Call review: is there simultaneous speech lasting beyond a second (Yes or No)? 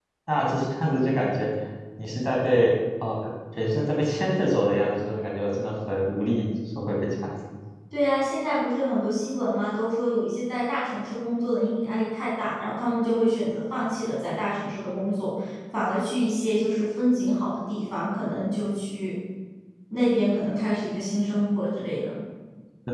No